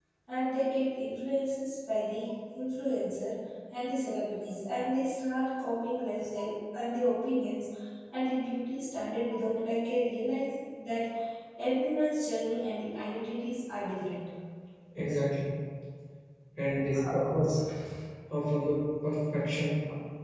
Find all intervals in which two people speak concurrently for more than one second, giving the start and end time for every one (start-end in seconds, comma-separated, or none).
none